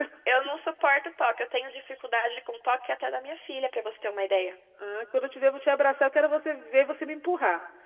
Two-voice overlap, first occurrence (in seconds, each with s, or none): none